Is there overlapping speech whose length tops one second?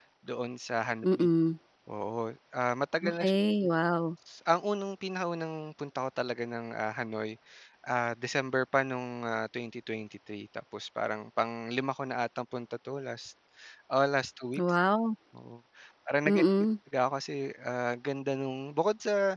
No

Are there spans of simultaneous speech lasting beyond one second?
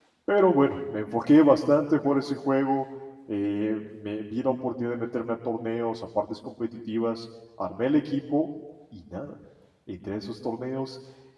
No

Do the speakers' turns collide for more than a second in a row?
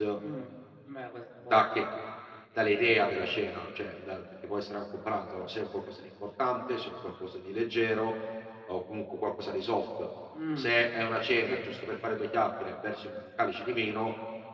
No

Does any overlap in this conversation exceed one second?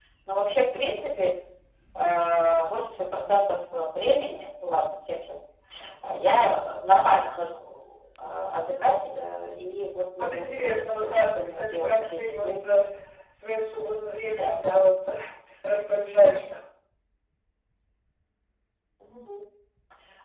Yes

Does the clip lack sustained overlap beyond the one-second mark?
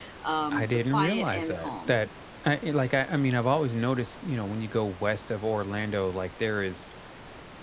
No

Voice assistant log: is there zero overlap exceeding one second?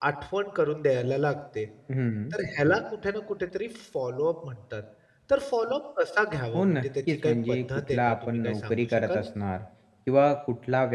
No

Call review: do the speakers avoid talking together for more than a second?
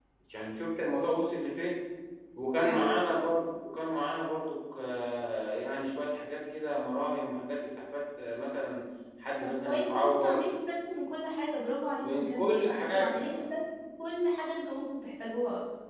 No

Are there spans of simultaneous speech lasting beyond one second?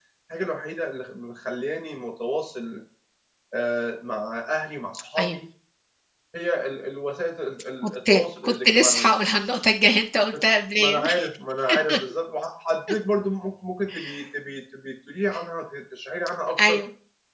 Yes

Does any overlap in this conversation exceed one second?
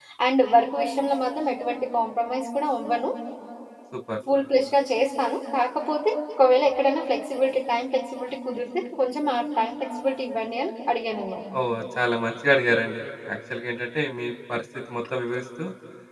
No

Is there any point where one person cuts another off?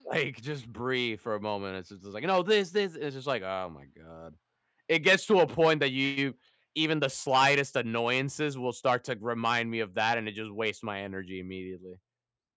No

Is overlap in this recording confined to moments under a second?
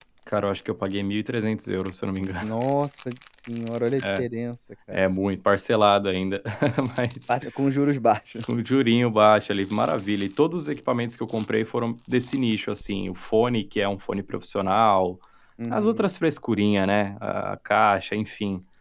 Yes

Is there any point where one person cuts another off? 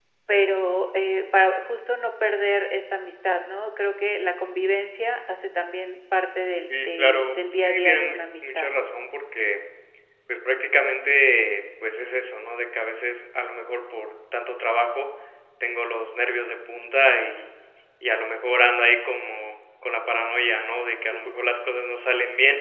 Yes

